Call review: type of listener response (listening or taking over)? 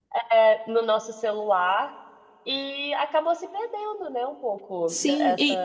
taking over